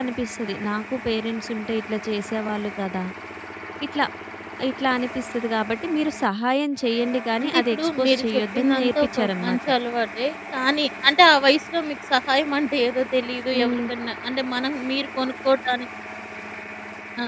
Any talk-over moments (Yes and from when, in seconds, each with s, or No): Yes, from 7.4 s